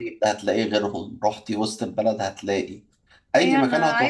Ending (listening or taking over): taking over